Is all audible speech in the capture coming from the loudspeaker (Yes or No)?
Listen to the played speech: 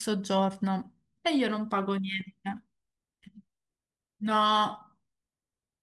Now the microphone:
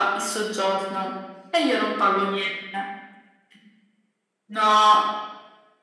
Yes